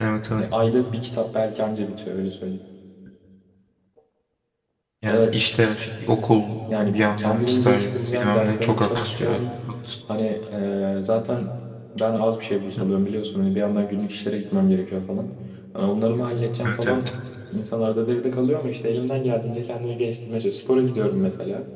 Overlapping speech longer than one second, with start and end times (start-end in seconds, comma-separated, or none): 6.8-9.4